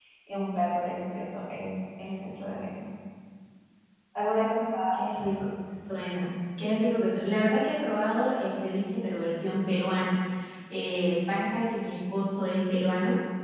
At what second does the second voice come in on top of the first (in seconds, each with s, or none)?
none